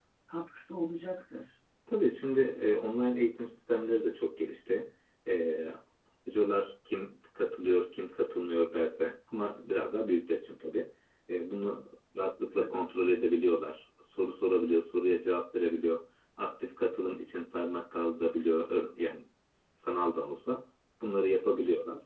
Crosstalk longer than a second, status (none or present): none